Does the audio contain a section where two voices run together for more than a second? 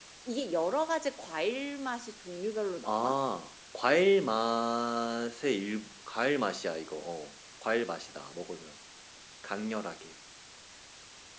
No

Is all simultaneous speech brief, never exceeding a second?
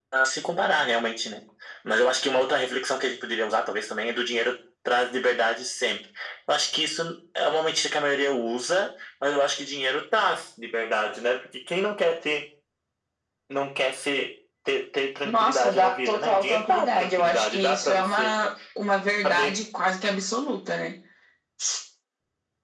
No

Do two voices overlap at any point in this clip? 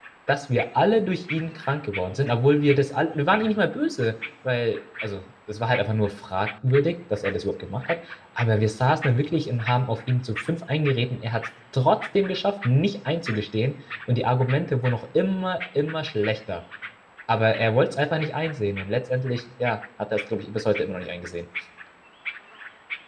No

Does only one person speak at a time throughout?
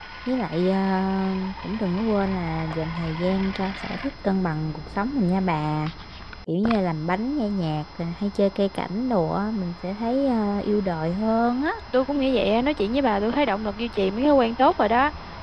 Yes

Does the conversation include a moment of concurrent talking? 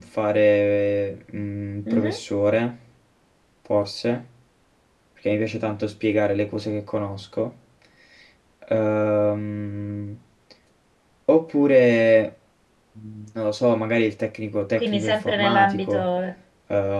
Yes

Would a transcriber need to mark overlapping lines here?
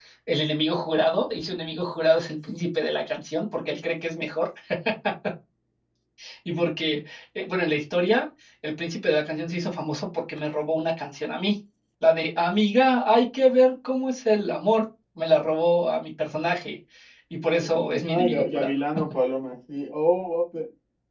Yes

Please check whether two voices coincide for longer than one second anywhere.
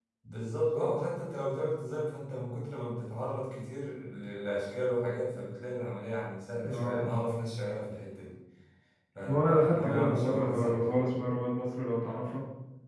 Yes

